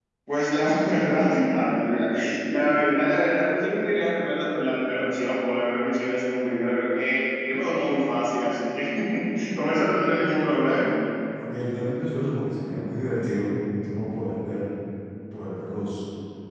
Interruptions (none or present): none